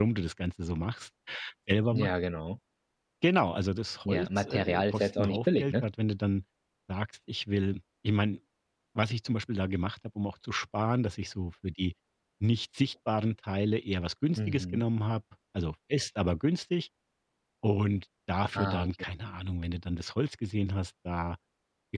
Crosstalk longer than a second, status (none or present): present